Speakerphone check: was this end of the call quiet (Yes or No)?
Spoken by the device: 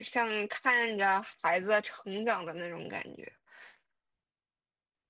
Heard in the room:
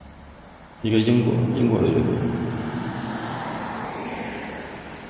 No